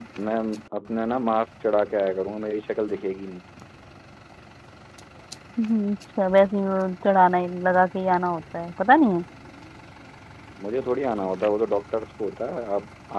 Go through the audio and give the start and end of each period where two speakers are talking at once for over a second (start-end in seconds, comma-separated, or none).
none